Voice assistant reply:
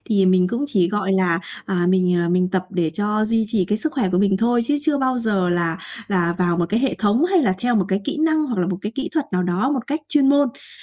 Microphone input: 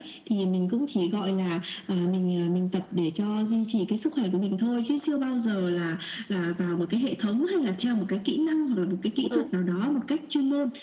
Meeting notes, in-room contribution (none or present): present